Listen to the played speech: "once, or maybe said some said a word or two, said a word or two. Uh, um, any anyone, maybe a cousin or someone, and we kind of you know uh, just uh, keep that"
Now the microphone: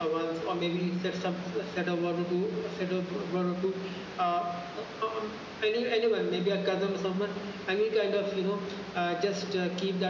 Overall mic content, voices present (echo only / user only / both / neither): echo only